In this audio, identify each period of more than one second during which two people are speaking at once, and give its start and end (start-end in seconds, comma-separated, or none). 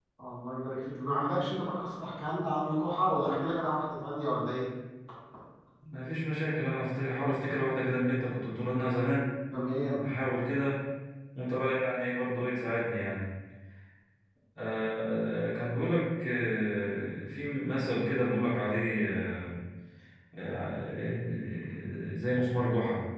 none